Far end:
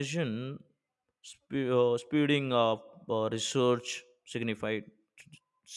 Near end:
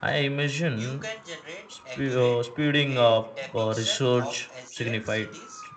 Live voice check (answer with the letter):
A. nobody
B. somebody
B